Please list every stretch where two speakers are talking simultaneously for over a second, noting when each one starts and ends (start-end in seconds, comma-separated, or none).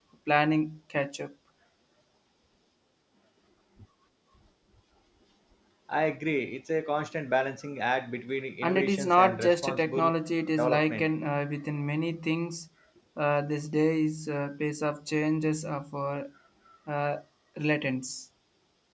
8.6-10.1